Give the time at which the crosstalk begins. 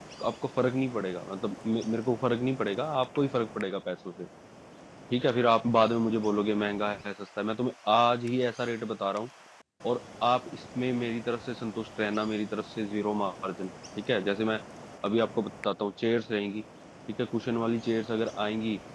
none

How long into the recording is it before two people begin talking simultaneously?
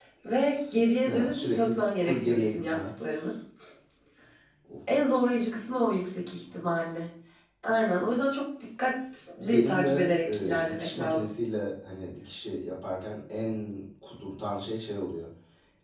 1.1 s

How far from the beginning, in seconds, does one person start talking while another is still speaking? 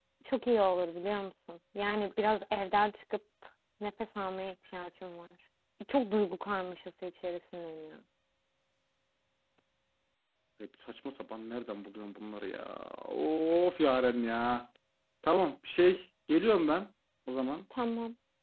none

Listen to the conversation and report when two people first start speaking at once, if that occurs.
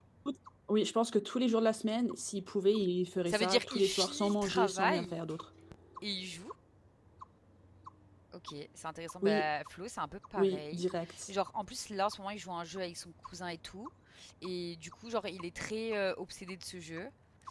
3.3 s

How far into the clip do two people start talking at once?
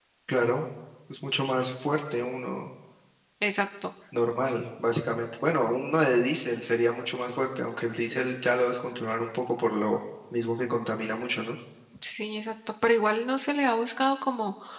none

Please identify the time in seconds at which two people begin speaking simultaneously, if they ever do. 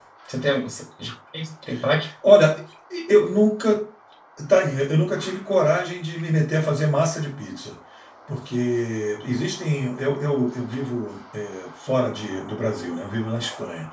none

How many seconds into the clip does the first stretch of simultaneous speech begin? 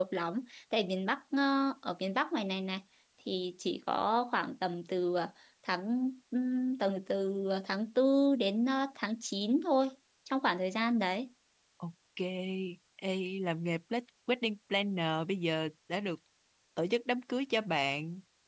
none

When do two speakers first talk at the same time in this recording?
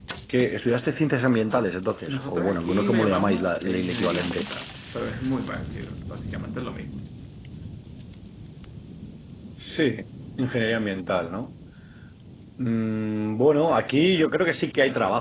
2.1 s

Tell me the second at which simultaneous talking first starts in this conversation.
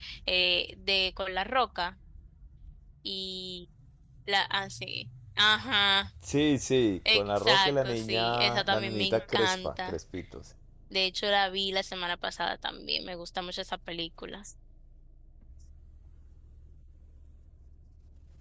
7.0 s

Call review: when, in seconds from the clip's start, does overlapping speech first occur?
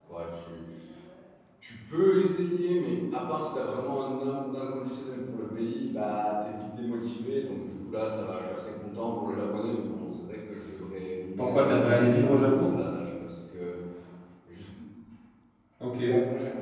11.4 s

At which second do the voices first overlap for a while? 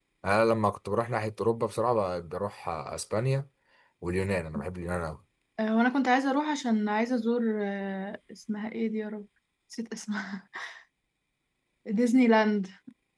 none

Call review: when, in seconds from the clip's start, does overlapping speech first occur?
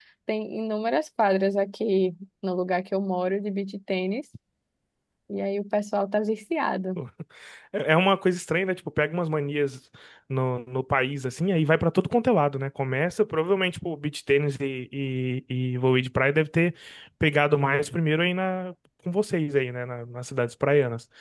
none

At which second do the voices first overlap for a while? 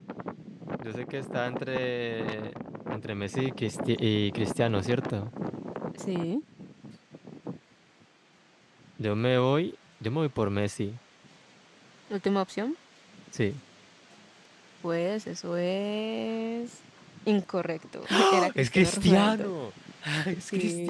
18.1 s

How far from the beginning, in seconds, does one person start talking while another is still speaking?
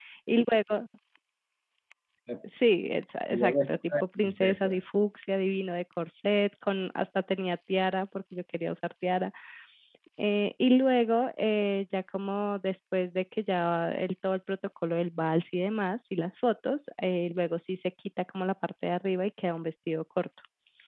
3.3 s

